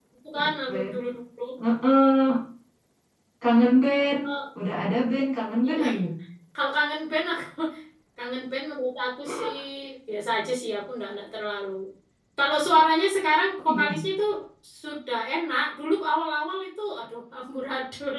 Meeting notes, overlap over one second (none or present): none